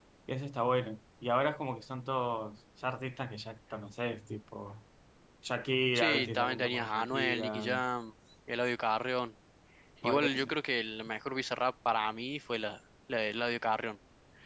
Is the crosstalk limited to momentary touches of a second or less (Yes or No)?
No